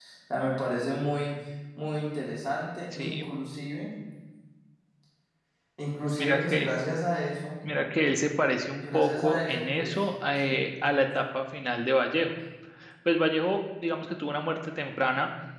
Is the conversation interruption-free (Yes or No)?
No